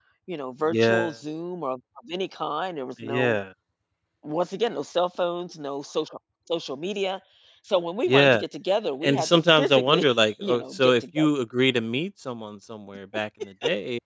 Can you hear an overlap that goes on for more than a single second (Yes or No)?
Yes